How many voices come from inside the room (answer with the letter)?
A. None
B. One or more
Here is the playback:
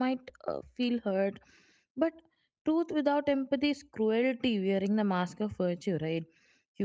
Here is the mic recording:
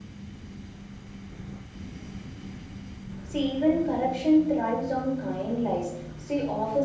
B